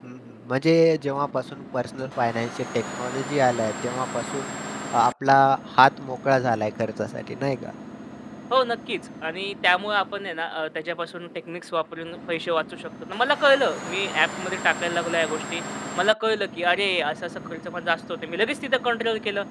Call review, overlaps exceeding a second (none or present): none